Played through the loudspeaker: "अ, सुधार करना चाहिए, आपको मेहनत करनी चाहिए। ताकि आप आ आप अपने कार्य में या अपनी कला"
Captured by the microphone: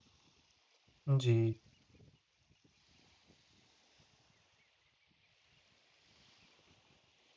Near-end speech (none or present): present